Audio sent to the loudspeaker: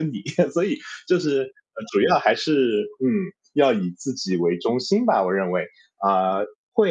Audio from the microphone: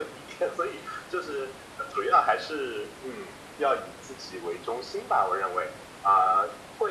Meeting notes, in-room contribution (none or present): none